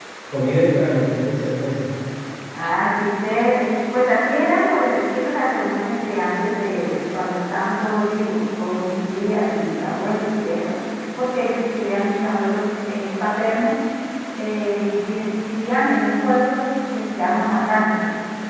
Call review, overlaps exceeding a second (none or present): none